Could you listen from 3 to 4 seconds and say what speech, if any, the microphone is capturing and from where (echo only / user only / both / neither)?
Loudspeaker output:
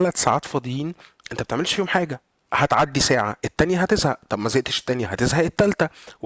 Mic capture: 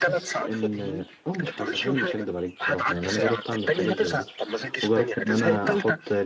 both